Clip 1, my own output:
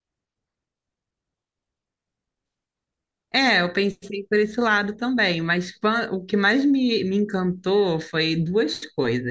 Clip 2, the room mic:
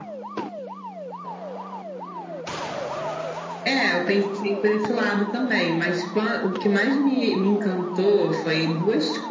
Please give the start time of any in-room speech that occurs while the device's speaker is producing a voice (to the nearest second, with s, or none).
none